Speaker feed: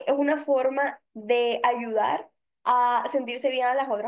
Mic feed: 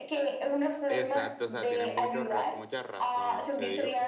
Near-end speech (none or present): present